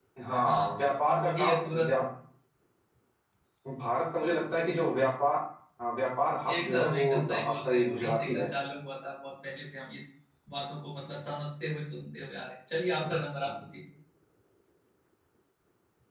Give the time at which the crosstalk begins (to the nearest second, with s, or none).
1 s